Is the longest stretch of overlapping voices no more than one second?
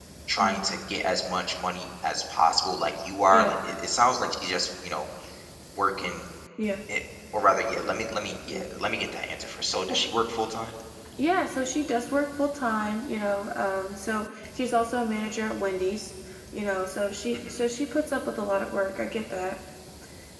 Yes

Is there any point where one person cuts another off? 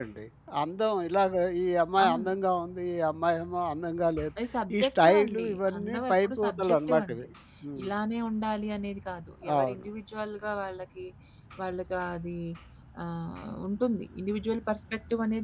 Yes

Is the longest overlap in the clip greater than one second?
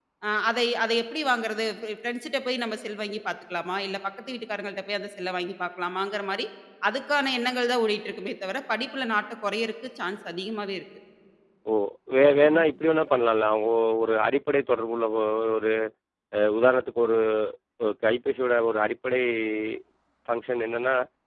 No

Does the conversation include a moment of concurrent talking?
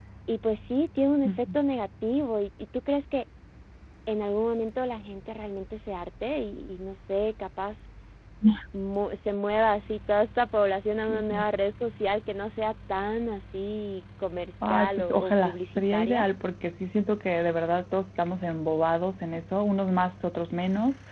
Yes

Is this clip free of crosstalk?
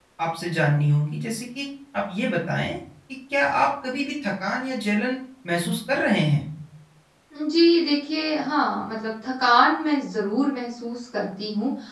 Yes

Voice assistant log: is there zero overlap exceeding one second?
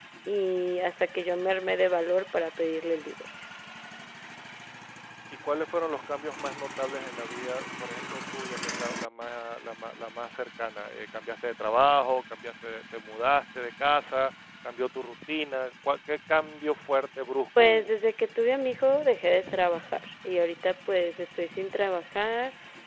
Yes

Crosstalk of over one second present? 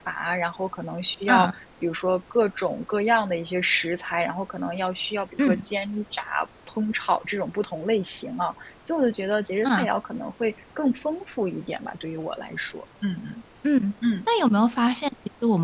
No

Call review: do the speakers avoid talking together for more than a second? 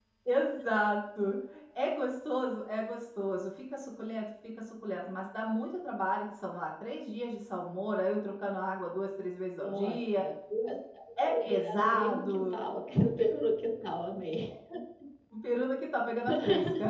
No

